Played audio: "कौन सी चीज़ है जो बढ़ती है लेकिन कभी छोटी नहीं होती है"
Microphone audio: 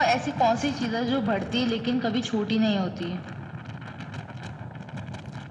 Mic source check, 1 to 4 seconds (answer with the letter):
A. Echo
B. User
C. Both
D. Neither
A